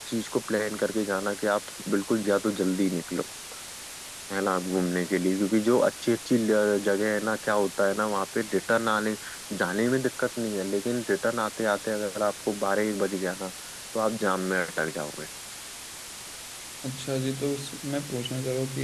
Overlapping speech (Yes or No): No